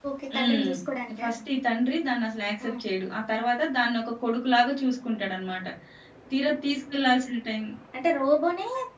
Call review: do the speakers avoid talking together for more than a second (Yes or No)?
Yes